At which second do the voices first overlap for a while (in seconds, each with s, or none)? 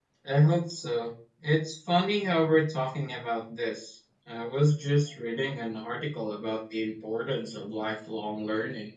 none